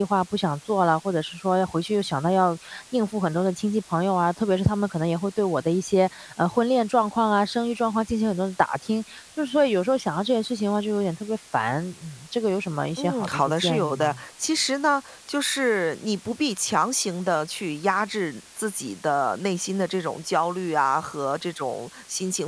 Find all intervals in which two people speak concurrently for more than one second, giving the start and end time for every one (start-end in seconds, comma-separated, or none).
13.0-14.2